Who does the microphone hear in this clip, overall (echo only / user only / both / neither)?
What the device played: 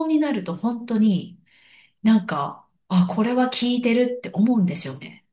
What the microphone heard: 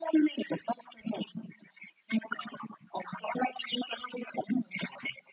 echo only